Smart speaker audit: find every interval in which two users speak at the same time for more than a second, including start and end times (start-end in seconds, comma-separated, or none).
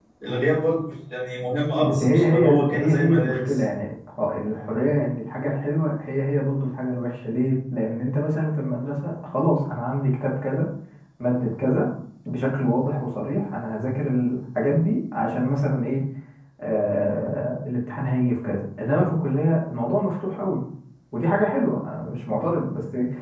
1.8-3.6